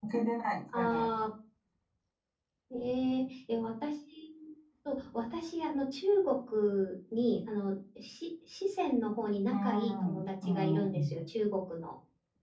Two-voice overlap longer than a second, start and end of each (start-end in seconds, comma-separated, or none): 9.5-11.1